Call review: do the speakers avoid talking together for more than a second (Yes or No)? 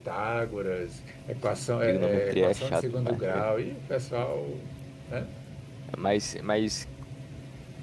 No